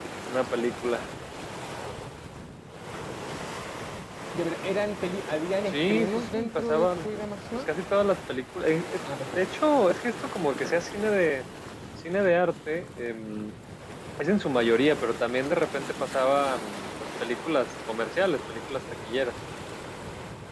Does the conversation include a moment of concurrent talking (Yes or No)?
Yes